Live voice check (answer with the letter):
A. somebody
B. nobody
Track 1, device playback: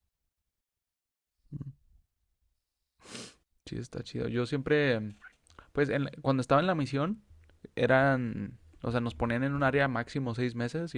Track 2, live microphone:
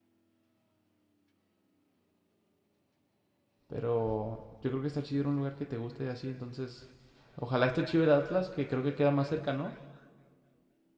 A